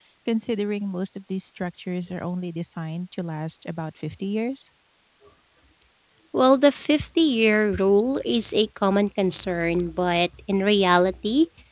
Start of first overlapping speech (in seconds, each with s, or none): none